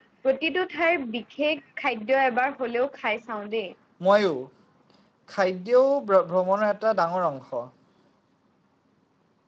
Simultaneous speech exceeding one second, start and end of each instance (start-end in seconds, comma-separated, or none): none